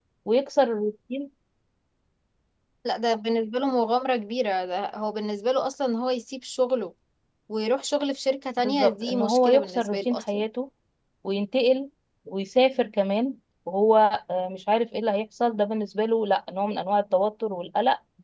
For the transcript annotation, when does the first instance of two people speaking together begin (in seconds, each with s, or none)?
8.6 s